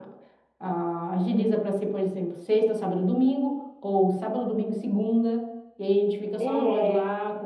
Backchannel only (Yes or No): Yes